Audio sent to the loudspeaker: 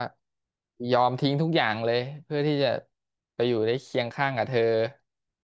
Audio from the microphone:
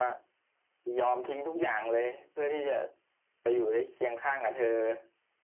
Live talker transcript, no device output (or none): none